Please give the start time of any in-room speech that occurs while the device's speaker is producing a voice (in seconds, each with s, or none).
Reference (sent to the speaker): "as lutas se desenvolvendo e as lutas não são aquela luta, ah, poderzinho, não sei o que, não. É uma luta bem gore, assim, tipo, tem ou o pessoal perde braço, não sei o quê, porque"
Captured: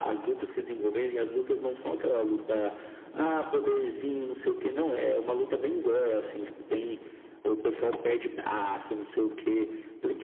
none